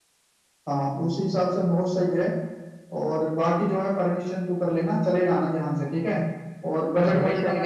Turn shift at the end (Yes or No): Yes